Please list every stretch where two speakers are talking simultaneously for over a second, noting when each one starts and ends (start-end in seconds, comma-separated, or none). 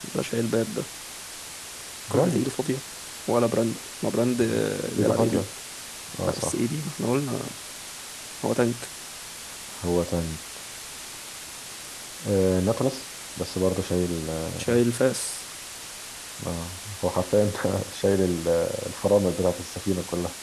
none